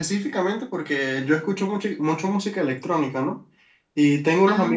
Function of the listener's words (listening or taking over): listening